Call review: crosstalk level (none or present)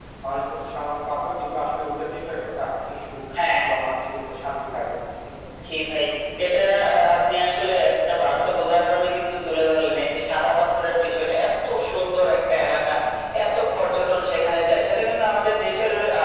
none